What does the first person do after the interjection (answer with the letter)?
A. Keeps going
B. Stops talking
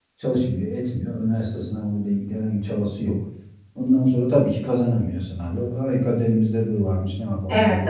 B